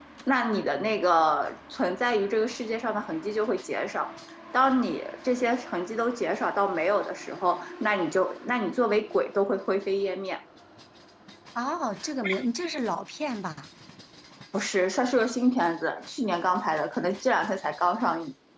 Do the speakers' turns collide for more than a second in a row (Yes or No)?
No